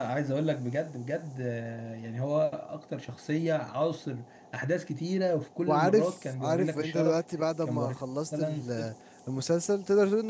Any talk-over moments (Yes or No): Yes